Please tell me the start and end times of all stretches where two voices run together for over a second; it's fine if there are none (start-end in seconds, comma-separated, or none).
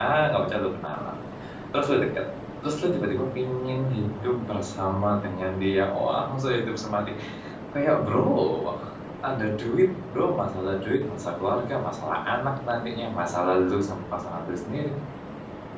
none